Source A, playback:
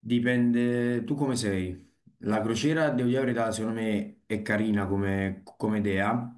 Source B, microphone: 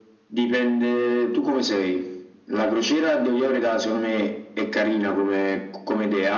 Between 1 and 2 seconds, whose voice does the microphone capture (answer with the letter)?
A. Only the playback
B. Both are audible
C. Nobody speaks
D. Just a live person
A